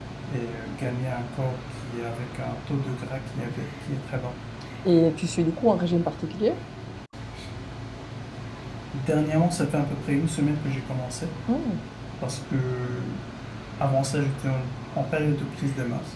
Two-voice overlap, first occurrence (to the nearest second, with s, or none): none